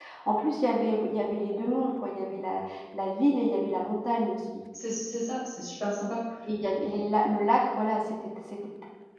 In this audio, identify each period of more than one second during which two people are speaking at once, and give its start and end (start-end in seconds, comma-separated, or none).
none